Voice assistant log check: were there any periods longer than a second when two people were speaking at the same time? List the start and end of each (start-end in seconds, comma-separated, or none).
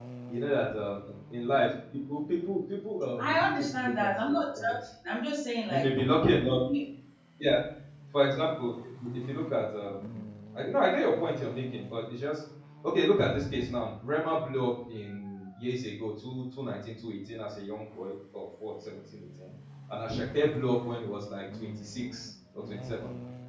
3.2-4.7